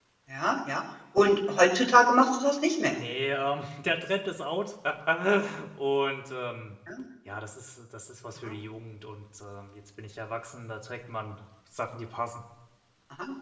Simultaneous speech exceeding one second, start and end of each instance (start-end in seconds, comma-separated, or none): none